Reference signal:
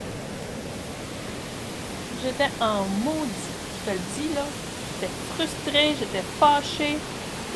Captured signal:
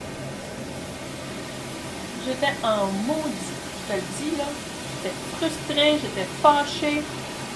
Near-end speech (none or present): none